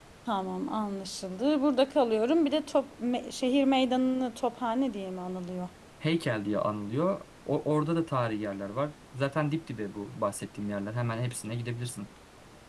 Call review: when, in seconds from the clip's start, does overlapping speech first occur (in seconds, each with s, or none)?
none